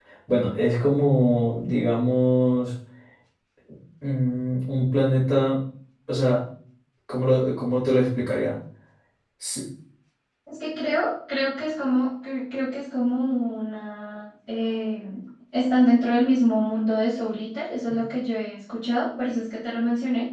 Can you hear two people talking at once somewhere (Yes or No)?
No